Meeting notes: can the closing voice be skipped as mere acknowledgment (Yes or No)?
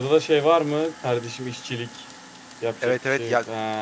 No